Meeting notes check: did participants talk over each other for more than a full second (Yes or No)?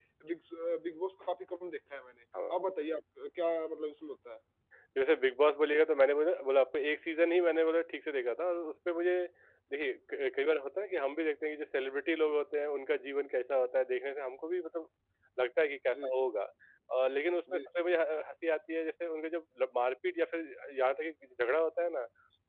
No